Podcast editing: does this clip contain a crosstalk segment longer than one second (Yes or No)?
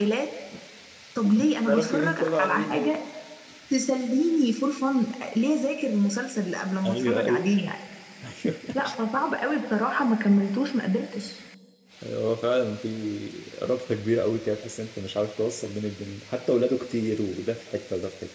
Yes